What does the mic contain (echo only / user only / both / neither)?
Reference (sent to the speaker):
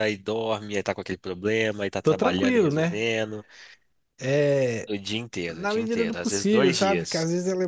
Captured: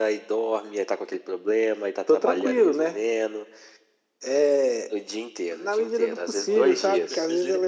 both